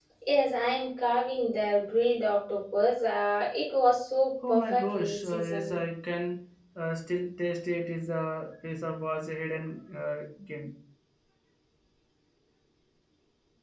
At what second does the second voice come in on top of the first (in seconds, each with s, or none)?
4.4 s